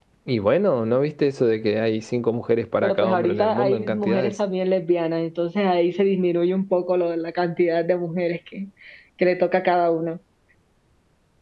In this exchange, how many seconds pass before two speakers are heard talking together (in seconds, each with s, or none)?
2.8 s